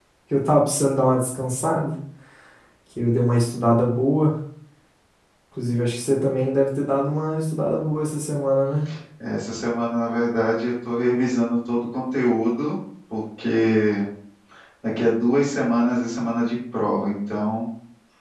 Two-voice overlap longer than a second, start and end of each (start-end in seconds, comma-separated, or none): none